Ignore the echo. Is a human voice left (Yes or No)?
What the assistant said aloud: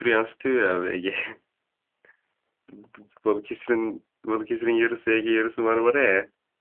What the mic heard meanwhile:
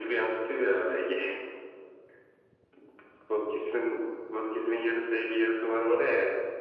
No